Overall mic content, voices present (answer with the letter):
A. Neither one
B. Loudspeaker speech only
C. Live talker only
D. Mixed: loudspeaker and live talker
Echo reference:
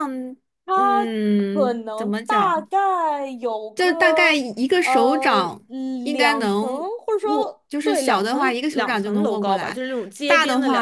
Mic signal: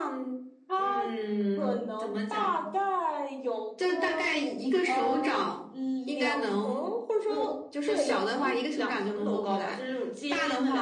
B